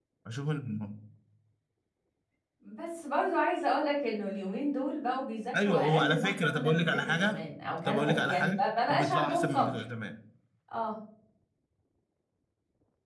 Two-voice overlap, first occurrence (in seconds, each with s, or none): 5.6 s